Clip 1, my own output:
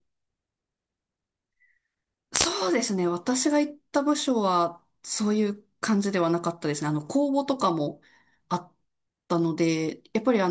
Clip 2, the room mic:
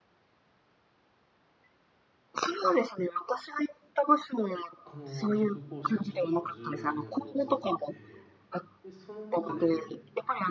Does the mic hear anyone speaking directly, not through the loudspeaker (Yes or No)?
Yes